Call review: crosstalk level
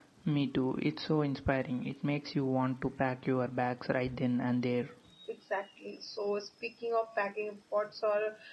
none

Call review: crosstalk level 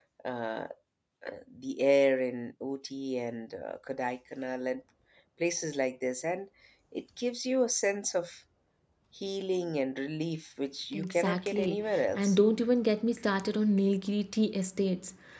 present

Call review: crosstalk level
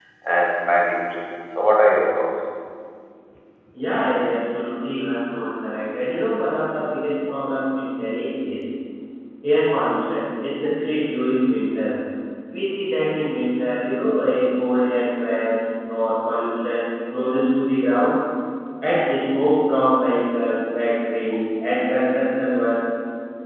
none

